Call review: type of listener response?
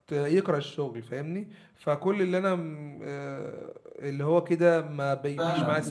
taking over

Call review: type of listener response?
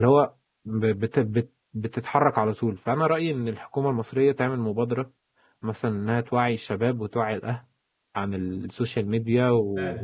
taking over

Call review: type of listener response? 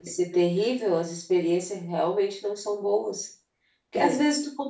listening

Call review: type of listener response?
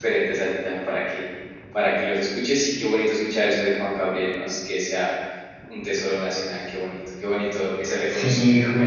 taking over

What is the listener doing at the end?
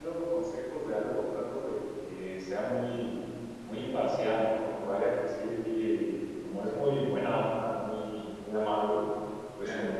listening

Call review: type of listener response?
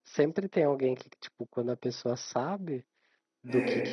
listening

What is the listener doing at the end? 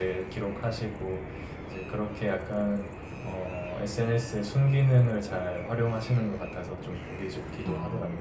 taking over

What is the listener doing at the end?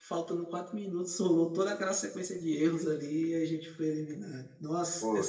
taking over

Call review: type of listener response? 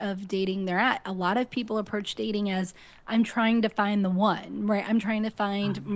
listening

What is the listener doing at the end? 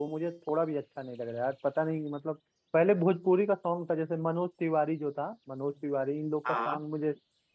listening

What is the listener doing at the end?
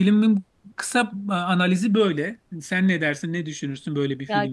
taking over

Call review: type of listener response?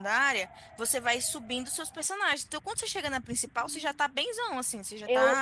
taking over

